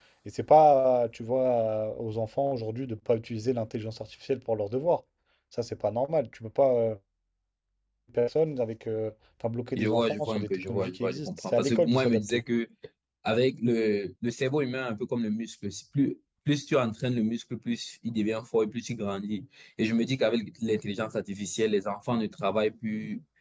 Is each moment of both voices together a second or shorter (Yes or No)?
No